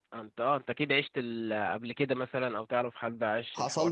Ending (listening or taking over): taking over